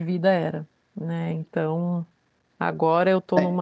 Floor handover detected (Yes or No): No